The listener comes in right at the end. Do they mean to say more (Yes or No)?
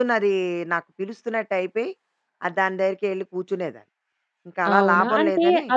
Yes